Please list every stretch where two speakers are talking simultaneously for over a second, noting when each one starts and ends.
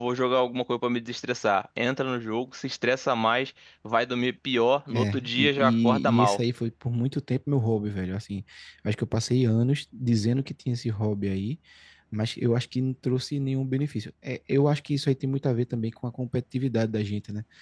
4.9-6.4

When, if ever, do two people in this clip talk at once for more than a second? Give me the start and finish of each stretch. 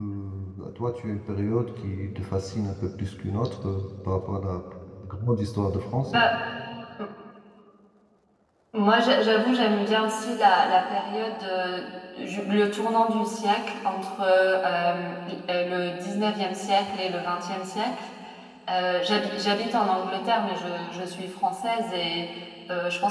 none

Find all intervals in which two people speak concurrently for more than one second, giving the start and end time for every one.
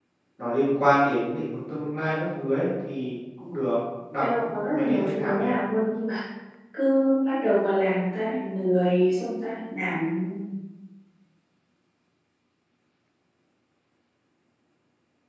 4.2-5.5

